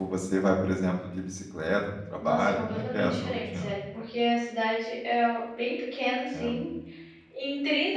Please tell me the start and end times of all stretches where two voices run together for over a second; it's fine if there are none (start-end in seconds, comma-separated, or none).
2.2-3.7